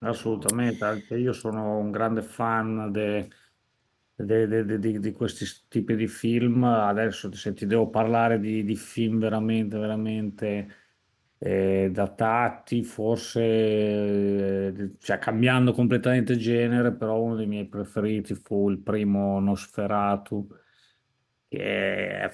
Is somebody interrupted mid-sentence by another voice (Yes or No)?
No